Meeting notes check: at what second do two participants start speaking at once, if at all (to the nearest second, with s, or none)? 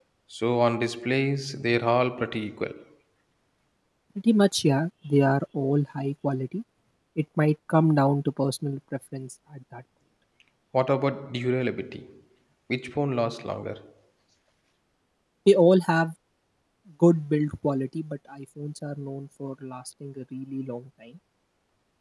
none